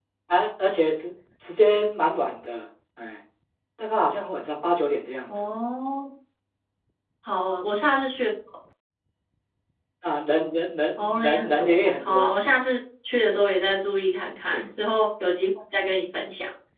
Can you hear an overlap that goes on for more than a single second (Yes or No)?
Yes